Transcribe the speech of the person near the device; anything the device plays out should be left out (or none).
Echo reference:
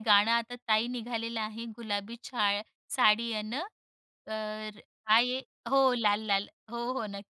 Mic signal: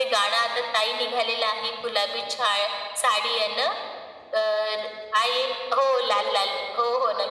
none